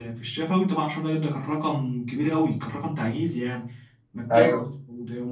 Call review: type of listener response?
listening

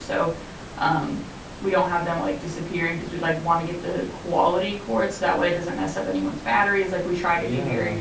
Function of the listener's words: taking over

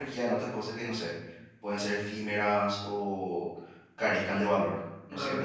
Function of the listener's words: taking over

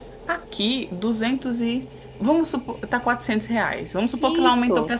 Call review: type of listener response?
listening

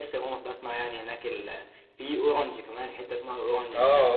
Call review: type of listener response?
taking over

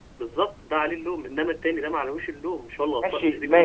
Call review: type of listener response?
taking over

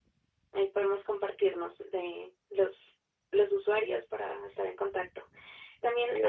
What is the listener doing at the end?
listening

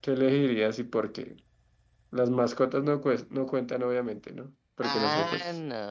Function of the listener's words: taking over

